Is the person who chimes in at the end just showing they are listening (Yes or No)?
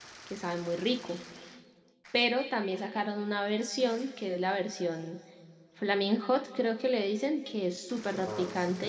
No